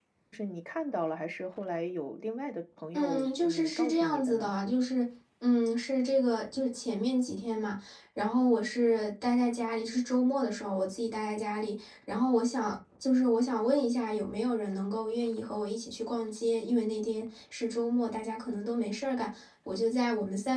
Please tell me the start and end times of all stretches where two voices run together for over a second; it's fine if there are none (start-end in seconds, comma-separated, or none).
2.9-4.5